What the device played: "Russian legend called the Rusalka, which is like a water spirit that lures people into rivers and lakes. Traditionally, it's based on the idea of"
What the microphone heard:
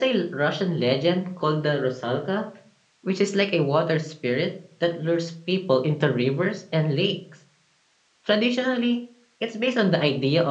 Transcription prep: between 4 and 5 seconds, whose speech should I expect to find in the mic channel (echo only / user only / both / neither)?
echo only